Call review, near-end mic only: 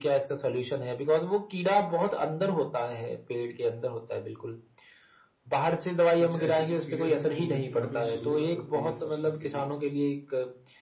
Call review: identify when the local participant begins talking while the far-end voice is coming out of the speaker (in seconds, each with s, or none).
6.2 s